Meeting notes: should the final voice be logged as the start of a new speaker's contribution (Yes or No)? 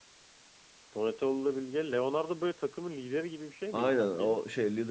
Yes